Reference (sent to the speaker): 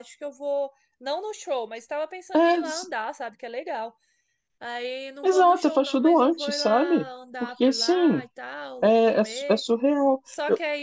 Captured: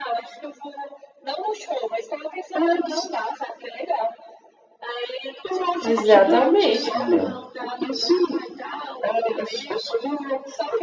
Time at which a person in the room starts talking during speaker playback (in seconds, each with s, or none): 5.8 s